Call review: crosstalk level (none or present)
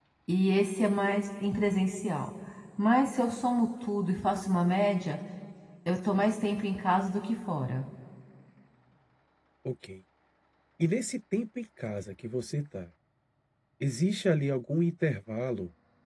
none